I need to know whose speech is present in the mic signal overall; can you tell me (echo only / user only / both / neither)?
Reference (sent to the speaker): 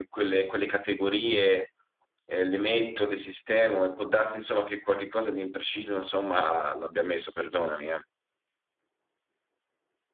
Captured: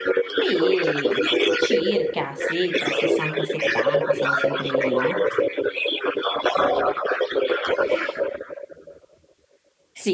both